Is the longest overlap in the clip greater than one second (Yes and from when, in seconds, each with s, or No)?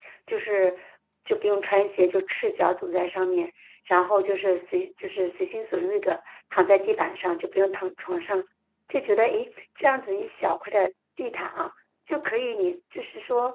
No